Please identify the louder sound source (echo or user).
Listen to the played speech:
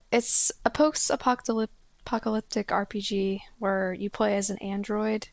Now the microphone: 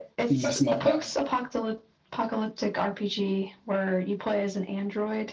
user